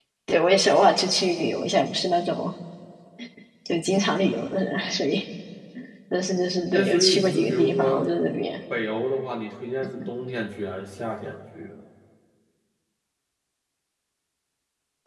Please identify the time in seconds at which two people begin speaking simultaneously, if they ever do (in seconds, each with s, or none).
6.7 s